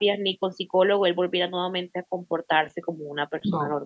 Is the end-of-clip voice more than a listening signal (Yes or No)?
Yes